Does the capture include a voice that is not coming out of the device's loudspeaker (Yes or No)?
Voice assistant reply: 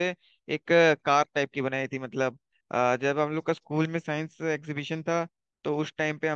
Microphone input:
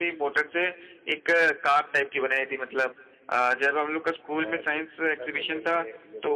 Yes